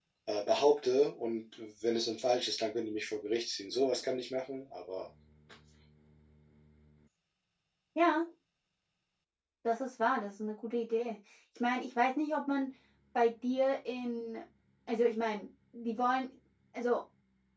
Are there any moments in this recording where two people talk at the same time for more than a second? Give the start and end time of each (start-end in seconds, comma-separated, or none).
none